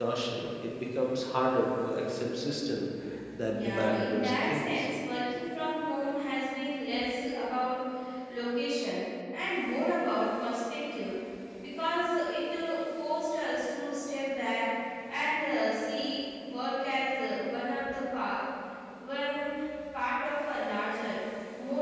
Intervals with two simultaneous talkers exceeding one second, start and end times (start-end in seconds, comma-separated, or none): 3.4-4.9